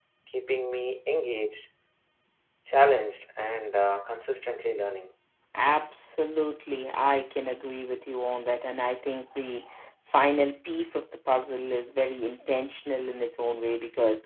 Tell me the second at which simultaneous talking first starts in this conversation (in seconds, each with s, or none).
none